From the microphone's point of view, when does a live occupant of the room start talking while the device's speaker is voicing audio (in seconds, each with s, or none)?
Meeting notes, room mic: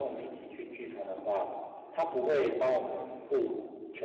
none